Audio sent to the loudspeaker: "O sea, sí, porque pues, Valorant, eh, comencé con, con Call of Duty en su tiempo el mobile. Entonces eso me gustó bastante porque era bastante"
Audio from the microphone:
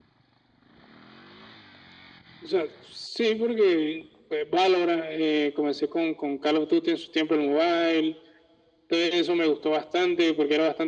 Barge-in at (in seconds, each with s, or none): none